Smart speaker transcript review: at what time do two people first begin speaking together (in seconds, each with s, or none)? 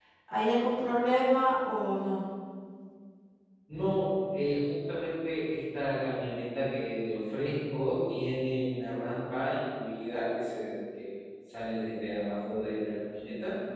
none